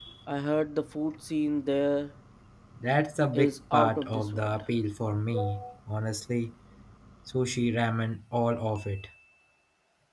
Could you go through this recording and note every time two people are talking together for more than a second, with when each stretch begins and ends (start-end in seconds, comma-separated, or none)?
3.3-4.6